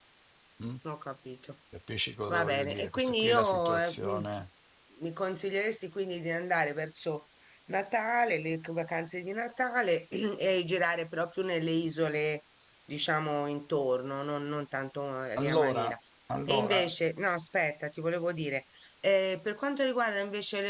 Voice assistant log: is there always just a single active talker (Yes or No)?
No